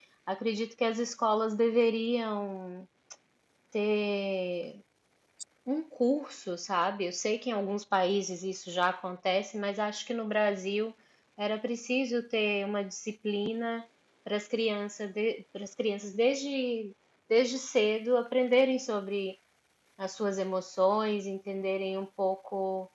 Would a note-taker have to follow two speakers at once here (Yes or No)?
No